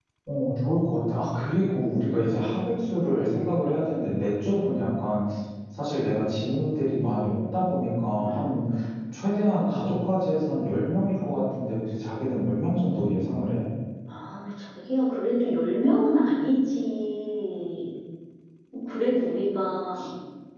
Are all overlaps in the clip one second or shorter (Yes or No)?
Yes